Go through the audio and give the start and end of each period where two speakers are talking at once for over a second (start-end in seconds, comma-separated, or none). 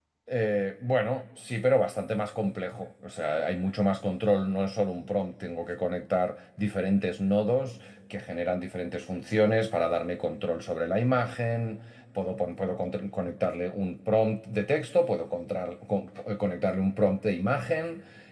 none